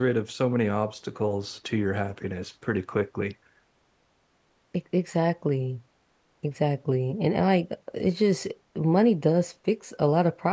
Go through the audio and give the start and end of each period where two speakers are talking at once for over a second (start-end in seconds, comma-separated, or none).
none